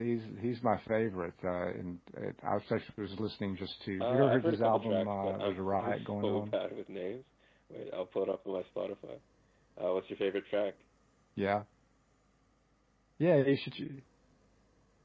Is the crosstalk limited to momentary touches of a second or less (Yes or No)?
No